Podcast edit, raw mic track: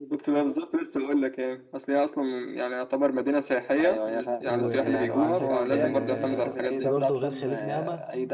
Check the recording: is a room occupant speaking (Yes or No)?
Yes